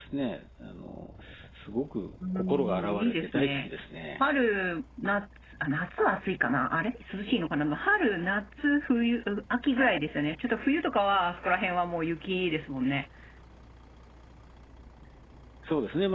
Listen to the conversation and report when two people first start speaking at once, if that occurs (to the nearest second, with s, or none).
2 s